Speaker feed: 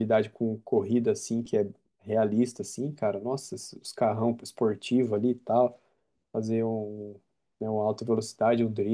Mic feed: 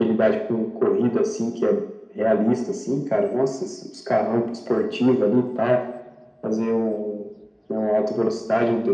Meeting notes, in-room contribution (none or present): none